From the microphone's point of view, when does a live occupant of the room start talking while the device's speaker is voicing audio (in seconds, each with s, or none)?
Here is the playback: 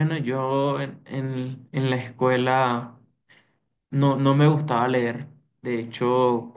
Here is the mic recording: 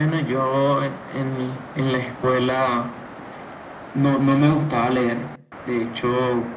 none